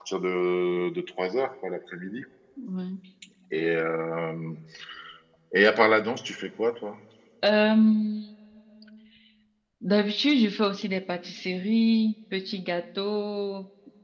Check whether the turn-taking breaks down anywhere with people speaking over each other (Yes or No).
No